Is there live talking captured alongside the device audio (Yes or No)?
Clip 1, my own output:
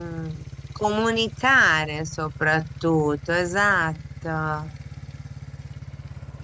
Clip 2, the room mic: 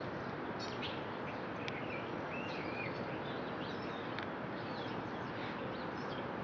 No